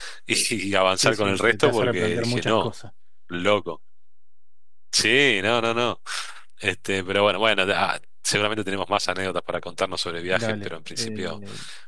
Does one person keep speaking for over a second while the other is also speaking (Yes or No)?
Yes